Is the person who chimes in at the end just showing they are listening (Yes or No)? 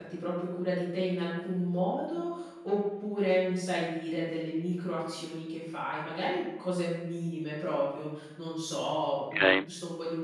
Yes